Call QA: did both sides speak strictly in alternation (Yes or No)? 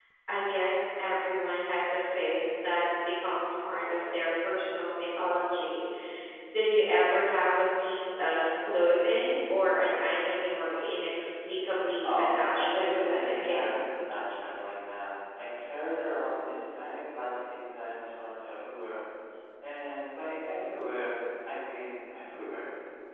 No